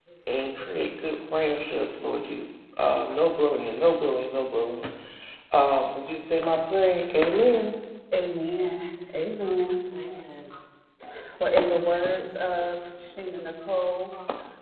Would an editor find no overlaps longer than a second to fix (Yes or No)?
Yes